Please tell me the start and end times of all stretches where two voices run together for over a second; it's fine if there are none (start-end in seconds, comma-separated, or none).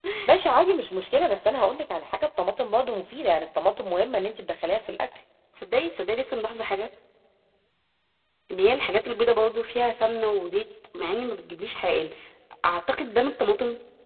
none